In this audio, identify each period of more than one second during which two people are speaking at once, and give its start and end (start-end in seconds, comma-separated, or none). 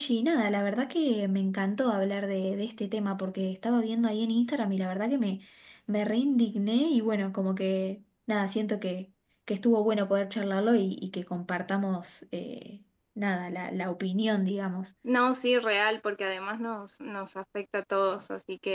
none